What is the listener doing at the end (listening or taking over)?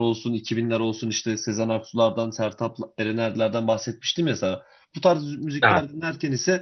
listening